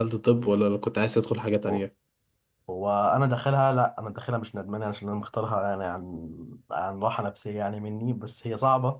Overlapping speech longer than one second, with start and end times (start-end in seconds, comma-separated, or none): none